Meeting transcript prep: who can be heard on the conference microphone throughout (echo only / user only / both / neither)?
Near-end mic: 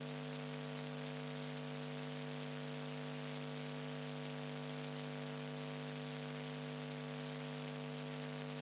neither